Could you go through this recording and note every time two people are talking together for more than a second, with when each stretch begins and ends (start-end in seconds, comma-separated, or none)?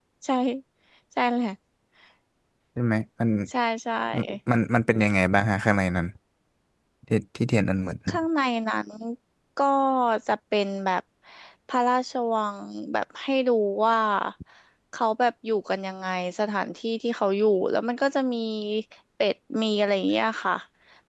none